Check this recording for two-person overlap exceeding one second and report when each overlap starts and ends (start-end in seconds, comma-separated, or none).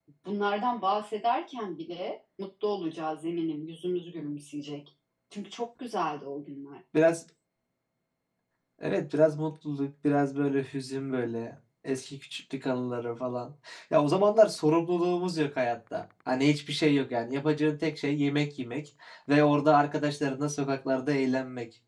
none